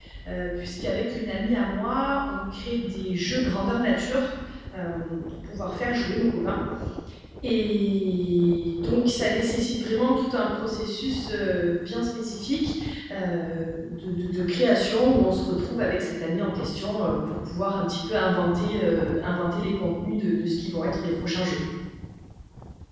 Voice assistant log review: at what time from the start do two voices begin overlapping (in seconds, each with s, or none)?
none